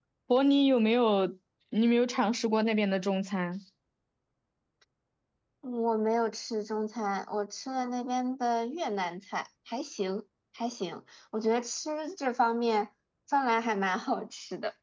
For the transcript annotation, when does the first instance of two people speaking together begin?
none

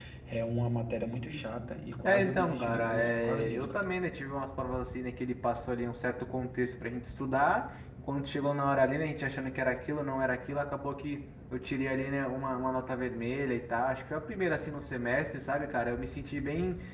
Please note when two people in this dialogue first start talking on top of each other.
2 s

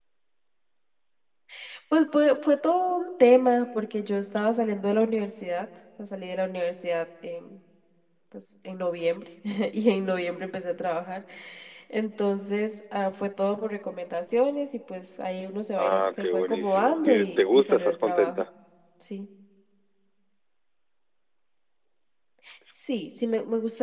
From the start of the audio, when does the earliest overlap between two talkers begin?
16 s

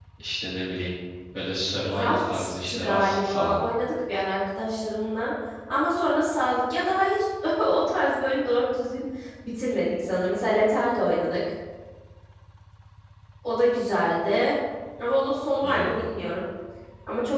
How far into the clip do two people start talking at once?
2 s

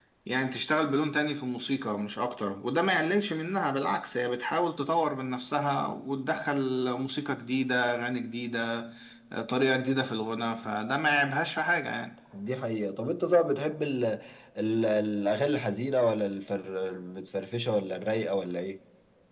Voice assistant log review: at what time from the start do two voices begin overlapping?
none

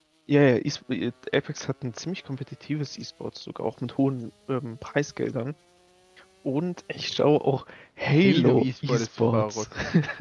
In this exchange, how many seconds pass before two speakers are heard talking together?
8 s

